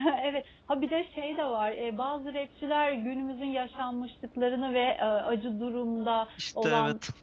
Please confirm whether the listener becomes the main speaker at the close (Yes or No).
No